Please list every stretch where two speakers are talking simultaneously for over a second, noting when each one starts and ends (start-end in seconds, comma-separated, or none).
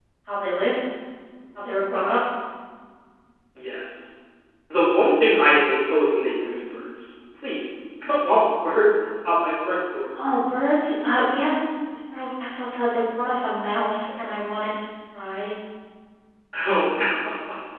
none